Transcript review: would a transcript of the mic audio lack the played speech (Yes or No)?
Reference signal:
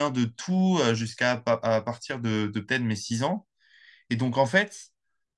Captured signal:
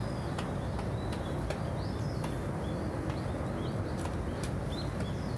Yes